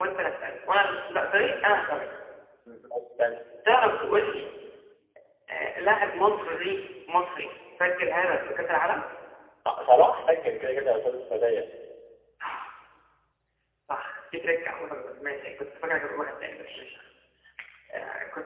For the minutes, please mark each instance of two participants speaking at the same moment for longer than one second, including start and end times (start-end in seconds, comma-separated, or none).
none